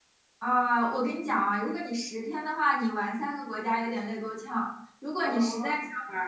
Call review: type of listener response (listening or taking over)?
listening